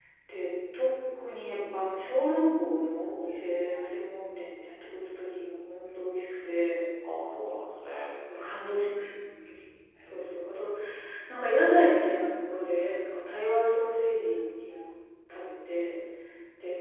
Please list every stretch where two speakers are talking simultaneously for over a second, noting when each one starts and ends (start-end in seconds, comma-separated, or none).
none